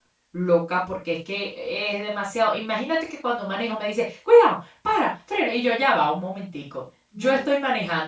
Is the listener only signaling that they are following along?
Yes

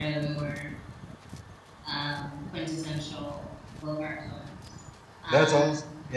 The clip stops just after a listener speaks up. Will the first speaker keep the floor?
No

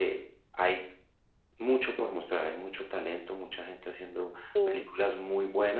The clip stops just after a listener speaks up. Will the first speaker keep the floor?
Yes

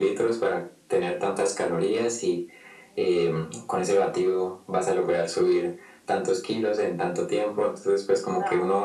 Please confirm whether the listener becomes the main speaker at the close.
No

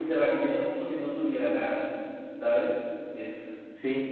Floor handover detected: Yes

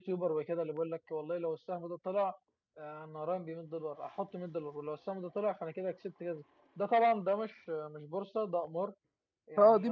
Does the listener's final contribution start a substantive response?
No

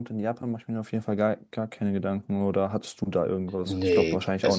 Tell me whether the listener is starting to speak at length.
Yes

